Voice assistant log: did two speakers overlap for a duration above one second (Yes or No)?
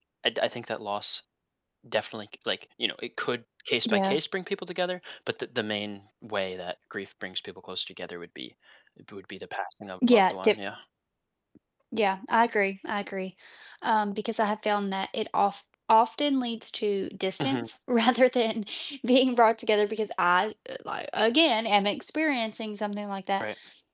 No